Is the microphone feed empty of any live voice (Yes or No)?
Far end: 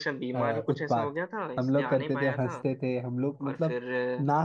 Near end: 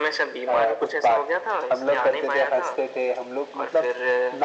Yes